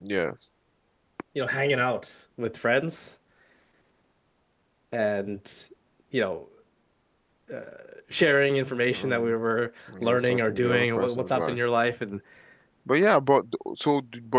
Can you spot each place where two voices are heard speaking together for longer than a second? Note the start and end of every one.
10.0-11.6

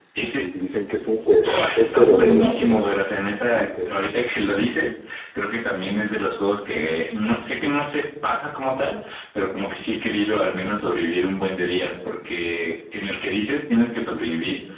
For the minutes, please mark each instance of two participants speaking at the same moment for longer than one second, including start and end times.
1.5-2.9

